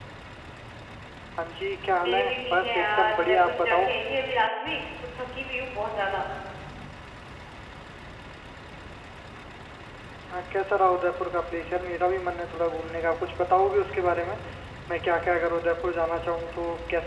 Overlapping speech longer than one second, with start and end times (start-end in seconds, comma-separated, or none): 2.0-3.9